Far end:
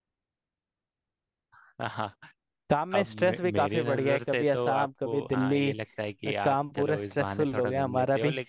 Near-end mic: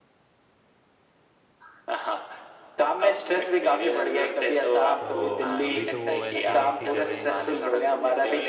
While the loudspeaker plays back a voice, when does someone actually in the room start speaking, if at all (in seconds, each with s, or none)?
5.0 s